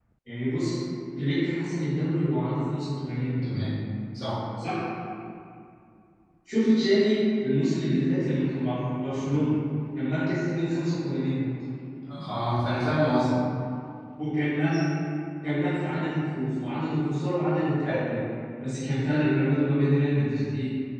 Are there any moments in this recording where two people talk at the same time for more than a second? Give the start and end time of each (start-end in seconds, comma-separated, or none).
none